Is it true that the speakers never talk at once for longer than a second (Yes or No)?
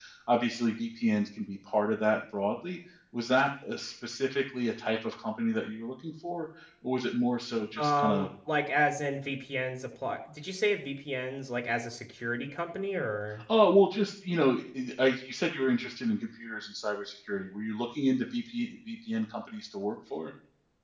Yes